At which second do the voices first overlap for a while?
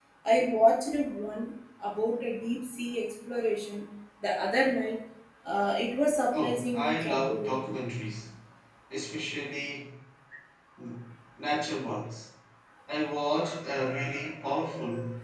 6.3 s

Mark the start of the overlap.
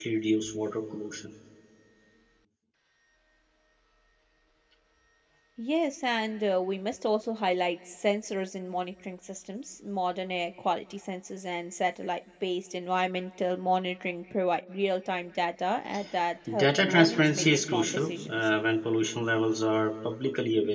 16.5 s

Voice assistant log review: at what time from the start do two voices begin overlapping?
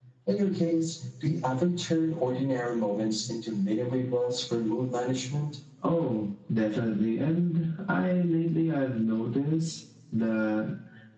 none

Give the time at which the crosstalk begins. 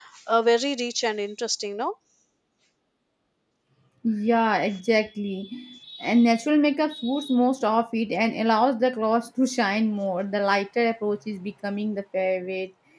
none

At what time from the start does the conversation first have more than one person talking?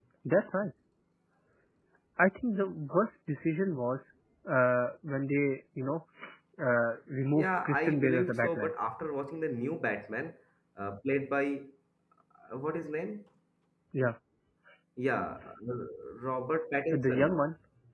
7.3 s

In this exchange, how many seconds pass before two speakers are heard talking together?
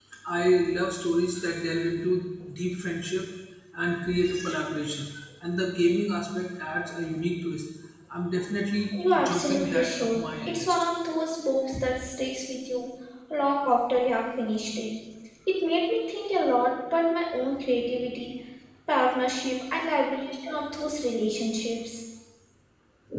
8.9 s

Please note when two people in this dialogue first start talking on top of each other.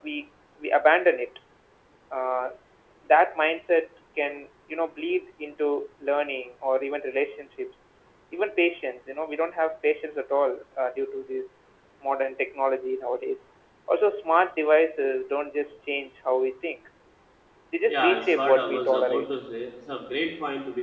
17.9 s

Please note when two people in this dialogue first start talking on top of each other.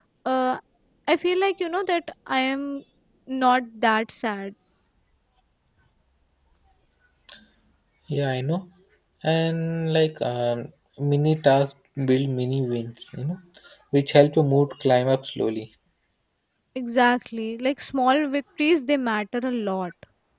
none

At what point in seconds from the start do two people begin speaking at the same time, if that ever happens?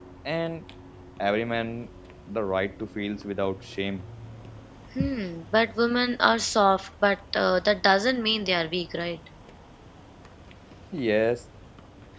none

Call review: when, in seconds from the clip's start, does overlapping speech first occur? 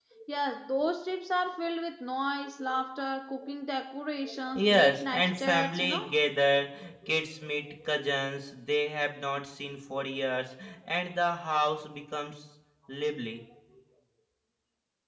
4.5 s

